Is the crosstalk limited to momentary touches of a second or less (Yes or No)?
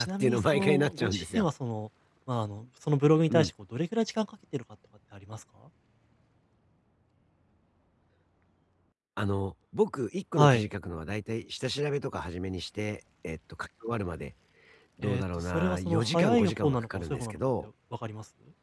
No